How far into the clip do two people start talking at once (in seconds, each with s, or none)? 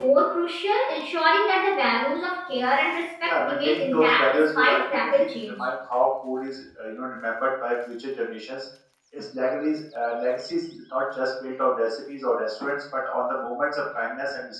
3.2 s